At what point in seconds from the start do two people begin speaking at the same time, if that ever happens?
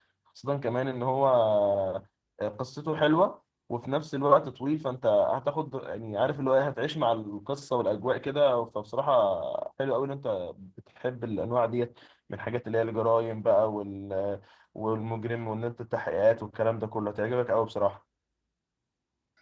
none

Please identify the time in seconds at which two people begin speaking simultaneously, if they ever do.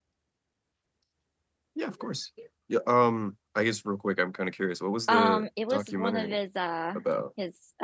5.1 s

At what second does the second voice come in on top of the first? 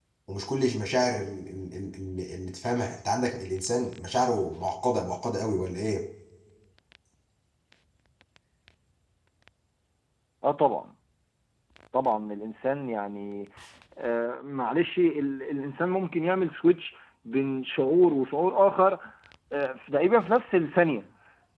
none

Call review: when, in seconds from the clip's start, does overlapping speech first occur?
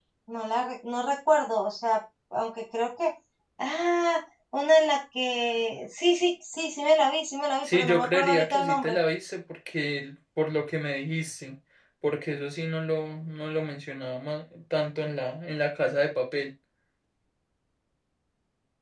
7.6 s

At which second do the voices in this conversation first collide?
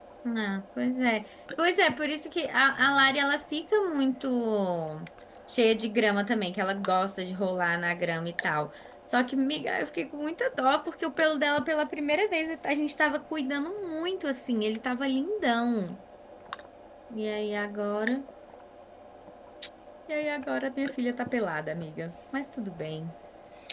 none

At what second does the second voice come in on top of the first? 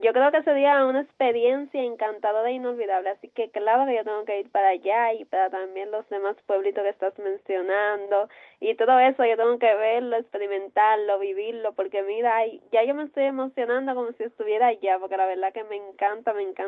none

